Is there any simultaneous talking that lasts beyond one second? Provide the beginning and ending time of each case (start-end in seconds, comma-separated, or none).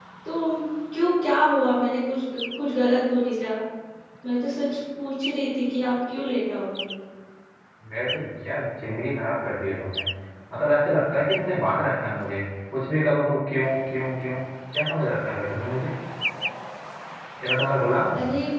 none